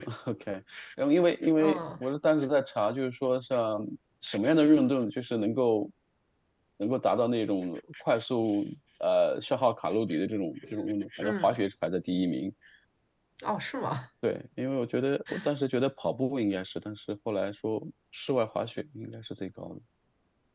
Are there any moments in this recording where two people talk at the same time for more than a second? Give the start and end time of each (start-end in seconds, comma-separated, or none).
none